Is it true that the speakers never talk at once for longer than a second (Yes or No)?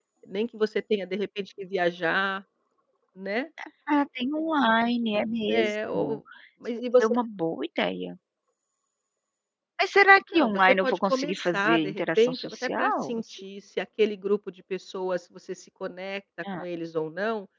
No